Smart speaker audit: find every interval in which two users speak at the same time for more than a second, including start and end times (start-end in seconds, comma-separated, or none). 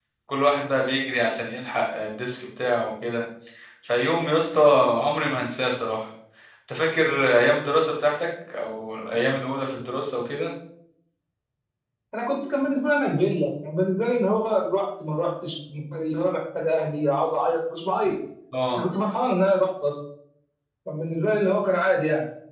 none